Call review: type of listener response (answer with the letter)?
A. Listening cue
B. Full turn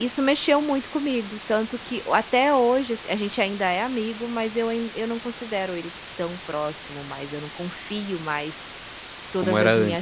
A